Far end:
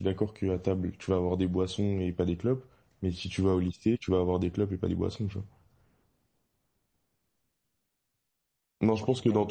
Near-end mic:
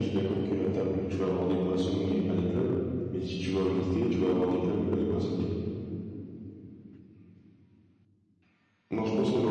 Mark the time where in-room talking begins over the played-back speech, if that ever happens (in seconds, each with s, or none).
none